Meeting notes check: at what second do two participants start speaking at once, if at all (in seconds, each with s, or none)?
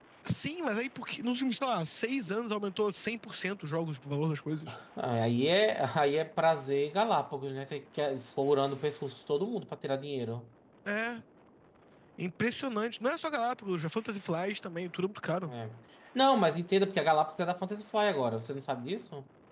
none